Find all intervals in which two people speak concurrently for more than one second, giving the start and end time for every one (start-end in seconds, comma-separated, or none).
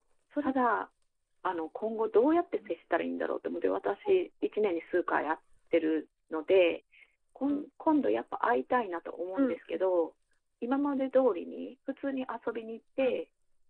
none